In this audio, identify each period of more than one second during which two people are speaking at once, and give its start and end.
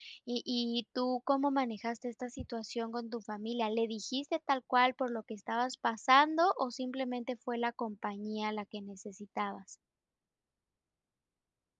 none

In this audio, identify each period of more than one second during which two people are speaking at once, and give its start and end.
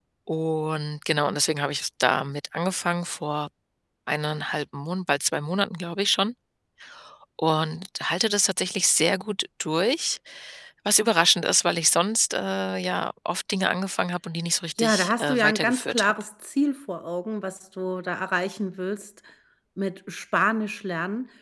14.8-16.1

